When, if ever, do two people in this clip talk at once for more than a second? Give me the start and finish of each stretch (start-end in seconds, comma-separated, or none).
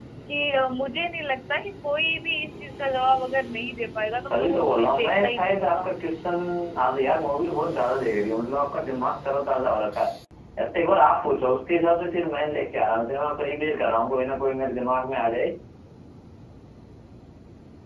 4.3-5.8